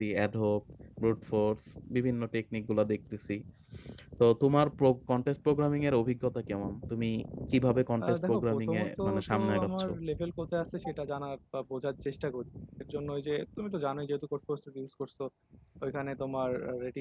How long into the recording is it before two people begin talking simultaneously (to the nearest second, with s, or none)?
8 s